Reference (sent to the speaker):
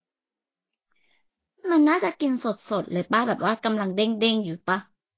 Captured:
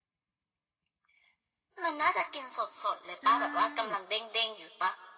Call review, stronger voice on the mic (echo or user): echo